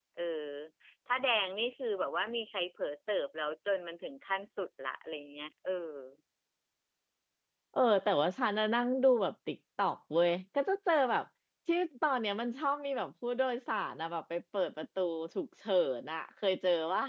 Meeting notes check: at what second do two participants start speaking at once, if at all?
none

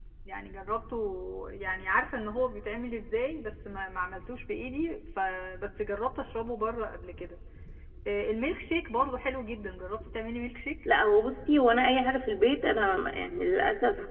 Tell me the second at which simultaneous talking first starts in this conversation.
none

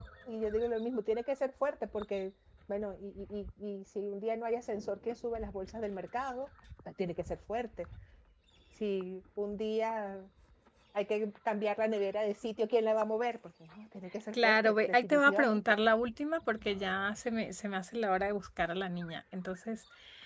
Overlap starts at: 14.3 s

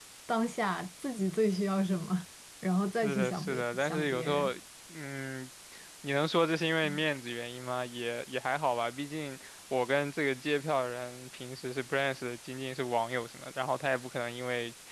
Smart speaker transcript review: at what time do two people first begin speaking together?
3.0 s

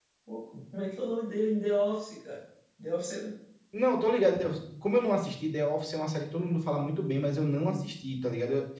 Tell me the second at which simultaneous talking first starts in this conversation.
none

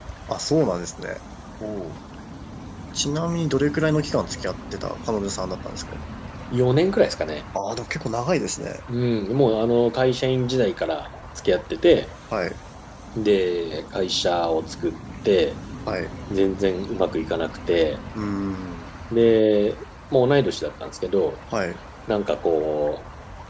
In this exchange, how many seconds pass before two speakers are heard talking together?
none

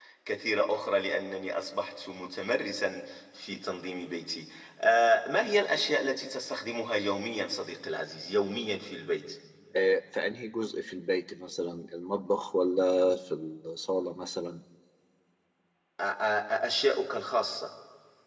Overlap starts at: none

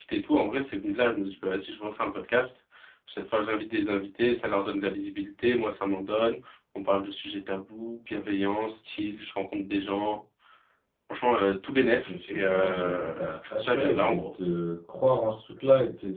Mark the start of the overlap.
12.1 s

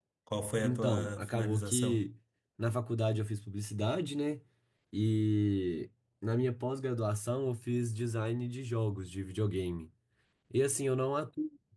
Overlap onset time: 0.6 s

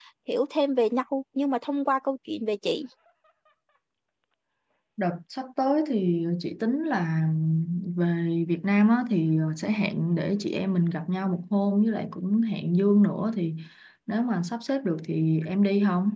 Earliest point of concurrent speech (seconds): none

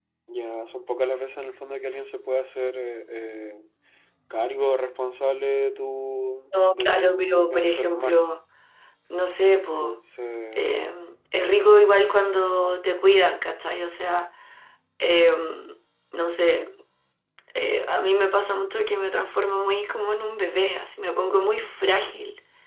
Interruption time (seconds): 6.7 s

